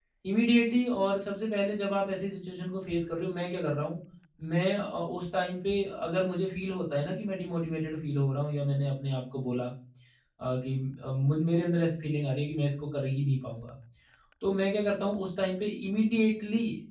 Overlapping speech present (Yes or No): No